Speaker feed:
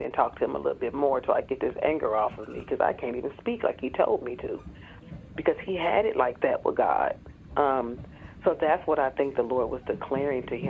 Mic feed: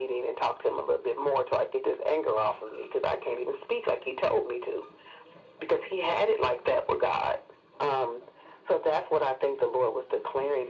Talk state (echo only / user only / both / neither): echo only